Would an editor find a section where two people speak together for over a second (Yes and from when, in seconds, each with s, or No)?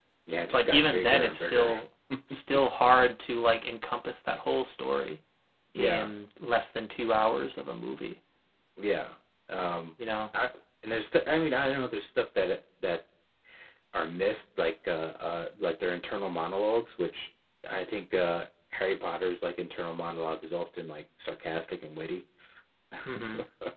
Yes, from 0.5 s